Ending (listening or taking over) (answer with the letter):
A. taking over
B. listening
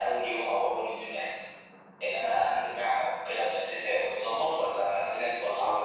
A